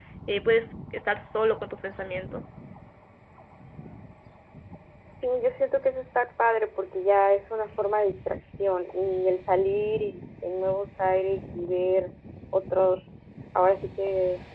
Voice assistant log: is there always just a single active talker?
Yes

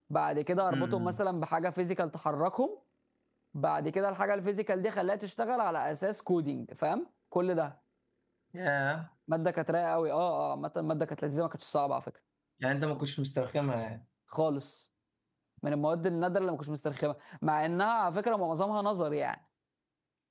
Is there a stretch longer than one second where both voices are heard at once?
No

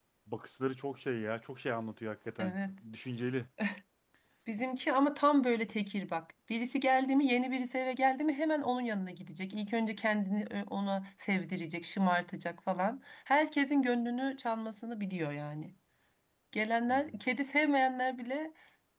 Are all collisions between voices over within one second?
Yes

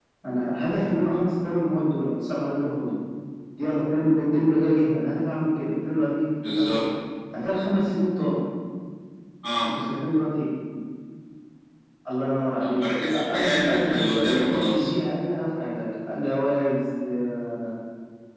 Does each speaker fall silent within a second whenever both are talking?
No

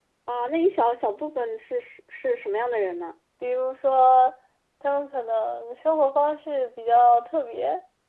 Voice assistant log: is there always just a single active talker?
Yes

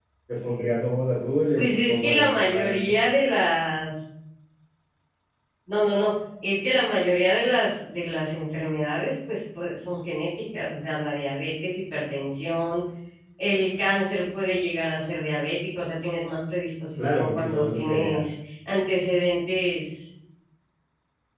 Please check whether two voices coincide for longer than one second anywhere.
Yes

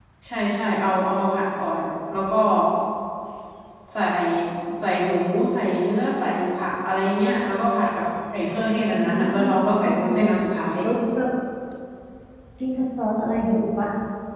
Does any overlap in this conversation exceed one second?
Yes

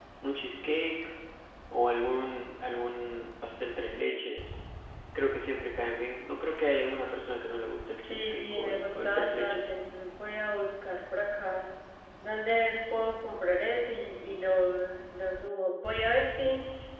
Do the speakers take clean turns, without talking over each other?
No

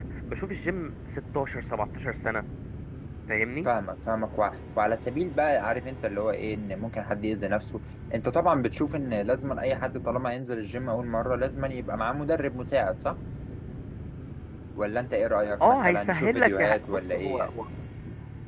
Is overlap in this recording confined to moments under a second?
No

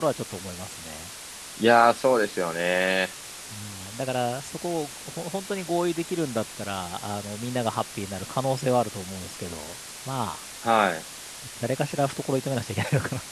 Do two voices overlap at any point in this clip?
No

